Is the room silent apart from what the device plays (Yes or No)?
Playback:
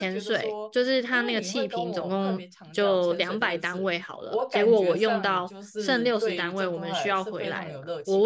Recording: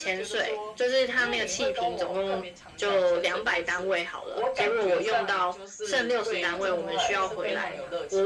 No